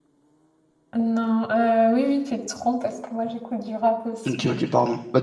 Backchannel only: No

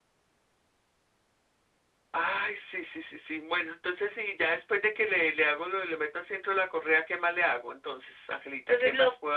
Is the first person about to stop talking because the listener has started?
Yes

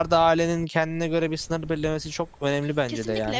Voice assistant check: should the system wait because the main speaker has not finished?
No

